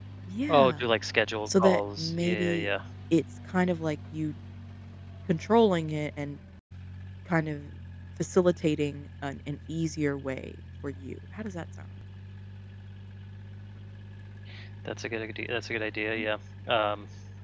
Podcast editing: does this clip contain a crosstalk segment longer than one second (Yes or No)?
Yes